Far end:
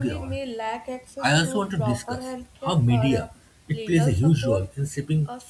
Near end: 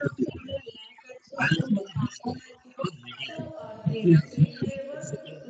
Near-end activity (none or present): present